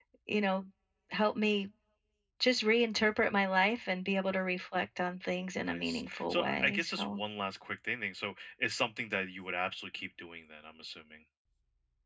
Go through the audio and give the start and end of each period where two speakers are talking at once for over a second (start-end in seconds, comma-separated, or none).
5.7-7.2